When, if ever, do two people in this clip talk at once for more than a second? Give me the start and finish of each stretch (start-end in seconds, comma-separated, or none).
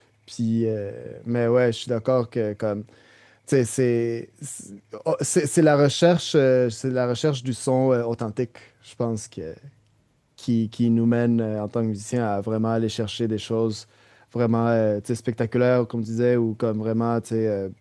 none